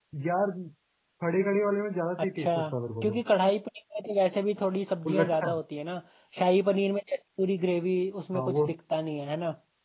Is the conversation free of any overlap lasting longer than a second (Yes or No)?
Yes